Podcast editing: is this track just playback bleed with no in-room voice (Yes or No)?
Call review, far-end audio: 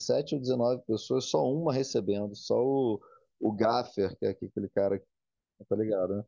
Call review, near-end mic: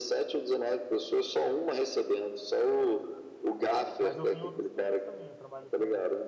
No